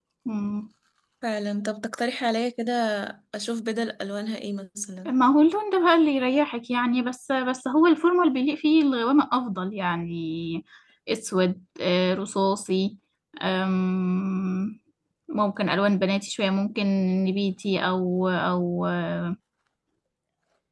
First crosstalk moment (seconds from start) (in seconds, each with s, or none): none